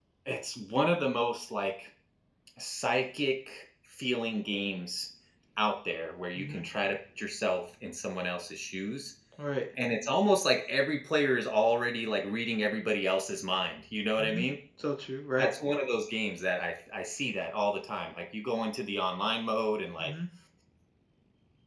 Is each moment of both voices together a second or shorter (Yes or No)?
Yes